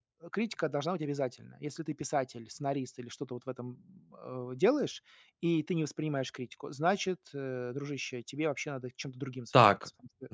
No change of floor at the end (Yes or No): No